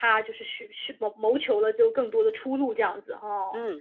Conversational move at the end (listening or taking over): taking over